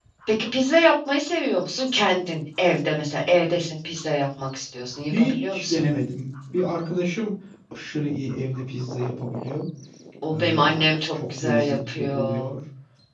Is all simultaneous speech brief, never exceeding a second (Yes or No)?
No